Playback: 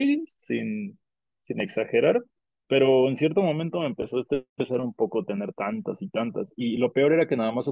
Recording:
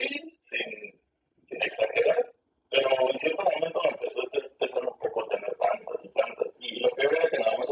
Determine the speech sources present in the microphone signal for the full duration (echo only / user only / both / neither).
echo only